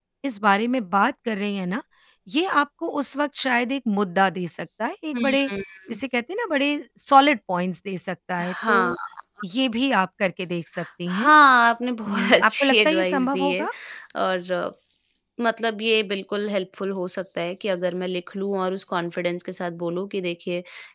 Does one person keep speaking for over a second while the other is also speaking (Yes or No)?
Yes